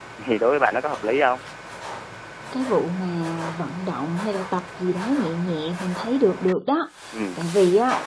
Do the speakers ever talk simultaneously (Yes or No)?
No